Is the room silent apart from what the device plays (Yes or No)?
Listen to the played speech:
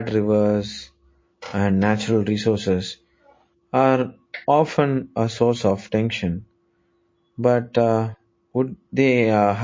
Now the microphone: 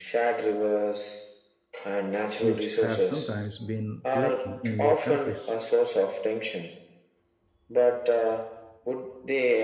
No